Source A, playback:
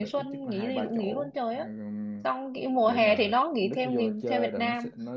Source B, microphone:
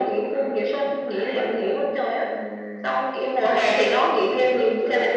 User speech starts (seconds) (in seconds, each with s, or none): none